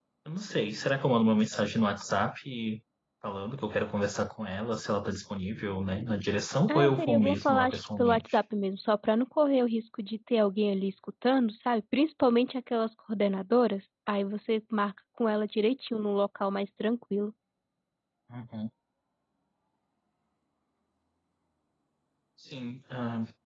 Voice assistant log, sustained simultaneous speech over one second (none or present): present